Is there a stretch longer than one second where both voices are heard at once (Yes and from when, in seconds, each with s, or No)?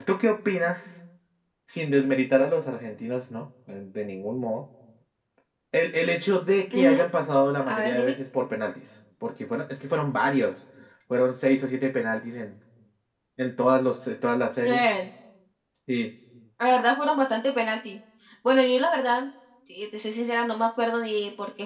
No